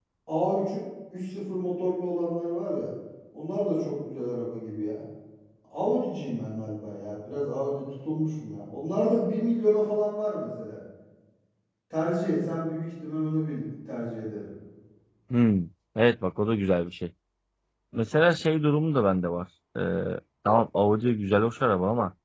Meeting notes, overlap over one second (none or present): none